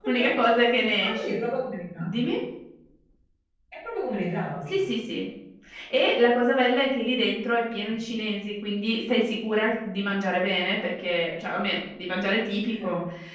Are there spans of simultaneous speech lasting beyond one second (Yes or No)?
No